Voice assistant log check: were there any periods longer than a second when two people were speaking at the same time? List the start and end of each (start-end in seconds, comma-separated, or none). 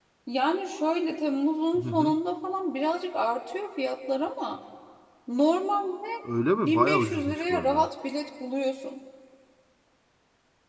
6.5-7.9